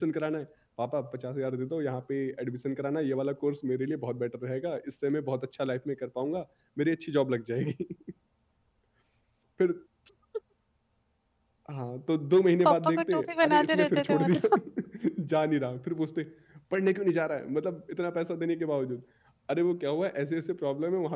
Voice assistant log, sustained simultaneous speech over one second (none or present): present